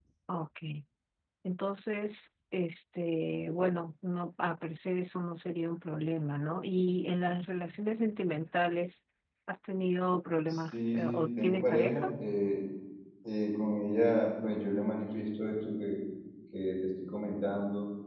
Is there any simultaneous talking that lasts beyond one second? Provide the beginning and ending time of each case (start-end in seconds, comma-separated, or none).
10.5-12.1